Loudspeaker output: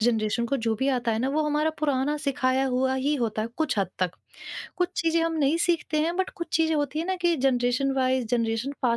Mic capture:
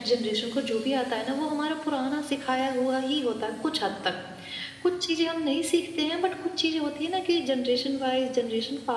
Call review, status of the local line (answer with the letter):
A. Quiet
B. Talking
A